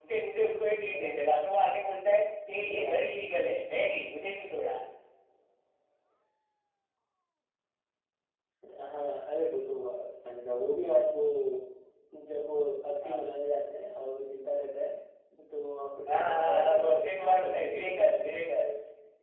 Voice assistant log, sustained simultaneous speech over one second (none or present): present